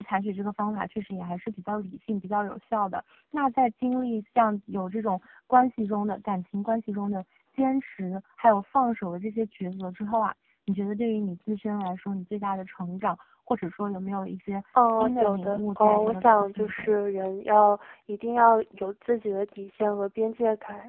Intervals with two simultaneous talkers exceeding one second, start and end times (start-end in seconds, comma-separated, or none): 14.8-16.9